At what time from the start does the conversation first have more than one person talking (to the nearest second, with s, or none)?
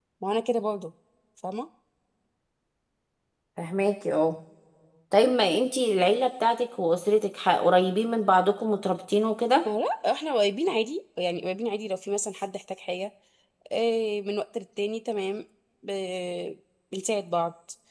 none